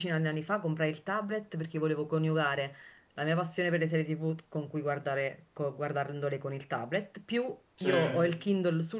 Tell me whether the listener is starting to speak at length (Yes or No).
No